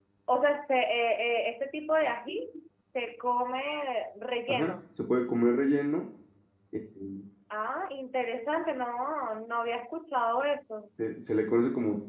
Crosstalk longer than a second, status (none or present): none